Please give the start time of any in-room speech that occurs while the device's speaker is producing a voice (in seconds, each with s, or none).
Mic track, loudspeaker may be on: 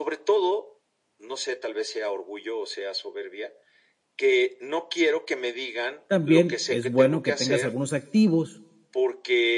6.1 s